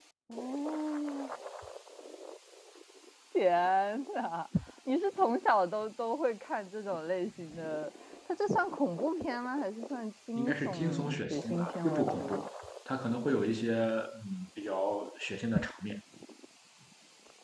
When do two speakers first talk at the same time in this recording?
10.4 s

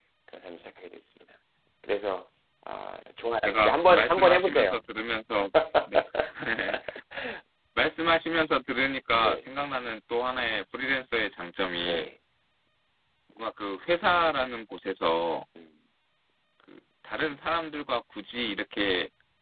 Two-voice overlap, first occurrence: 3.4 s

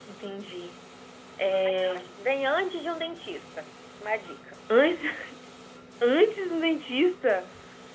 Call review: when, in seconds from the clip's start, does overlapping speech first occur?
none

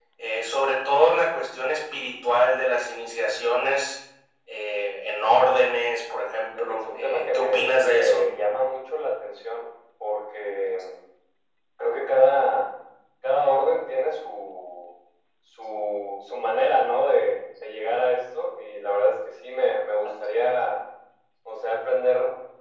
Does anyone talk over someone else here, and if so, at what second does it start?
6.6 s

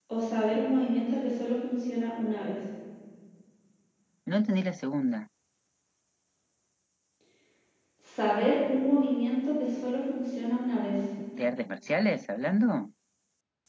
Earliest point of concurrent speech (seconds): none

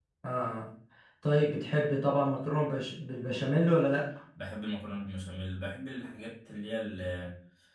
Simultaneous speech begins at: none

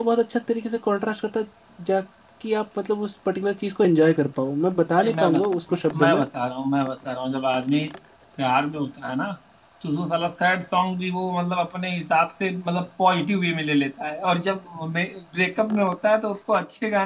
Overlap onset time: 4.9 s

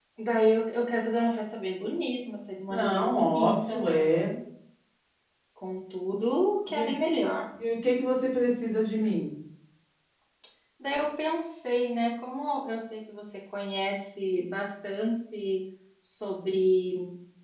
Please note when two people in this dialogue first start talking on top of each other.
2.7 s

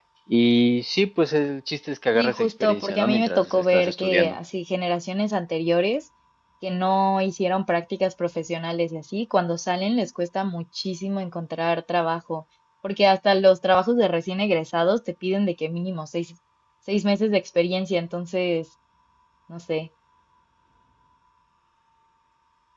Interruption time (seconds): 2.2 s

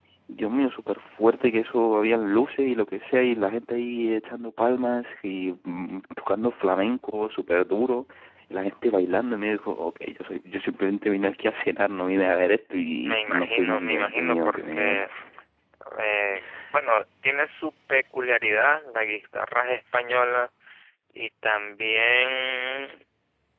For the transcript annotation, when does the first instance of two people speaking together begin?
12.7 s

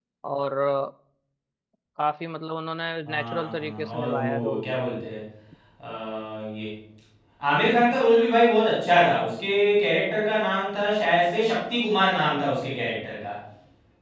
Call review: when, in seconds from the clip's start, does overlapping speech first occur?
3.1 s

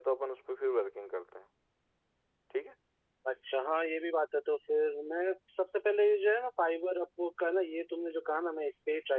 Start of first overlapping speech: none

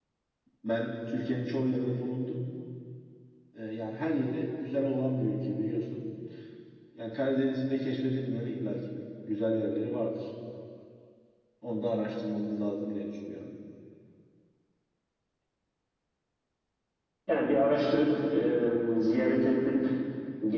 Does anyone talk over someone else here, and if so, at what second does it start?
none

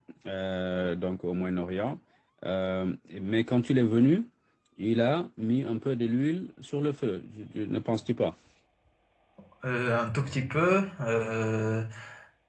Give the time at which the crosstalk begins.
none

